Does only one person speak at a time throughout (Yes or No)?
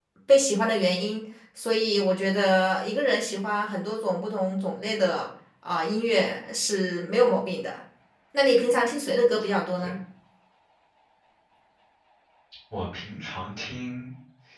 Yes